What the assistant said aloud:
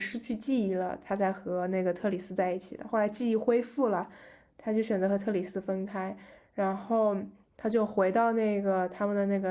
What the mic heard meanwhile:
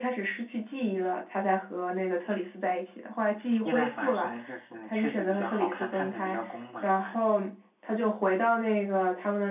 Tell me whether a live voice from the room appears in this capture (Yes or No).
Yes